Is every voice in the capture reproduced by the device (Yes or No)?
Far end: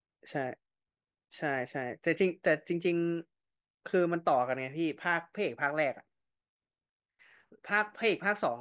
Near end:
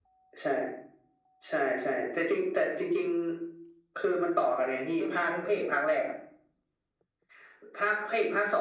No